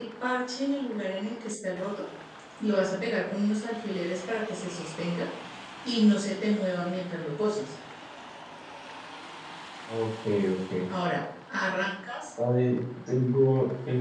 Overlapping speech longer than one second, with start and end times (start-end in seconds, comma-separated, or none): none